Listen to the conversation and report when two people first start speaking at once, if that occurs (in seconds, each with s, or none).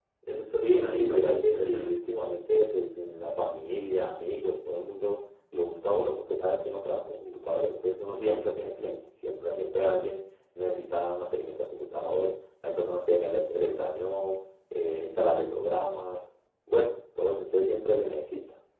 0.5 s